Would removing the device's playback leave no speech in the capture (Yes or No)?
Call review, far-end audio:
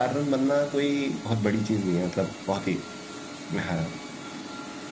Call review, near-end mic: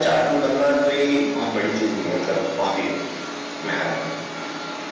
Yes